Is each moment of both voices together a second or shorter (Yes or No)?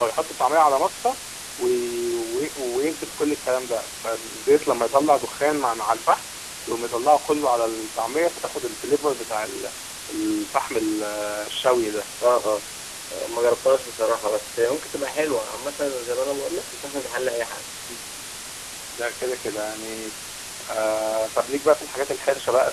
Yes